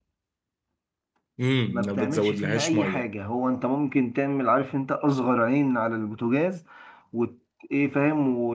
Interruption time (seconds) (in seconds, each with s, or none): 1.7 s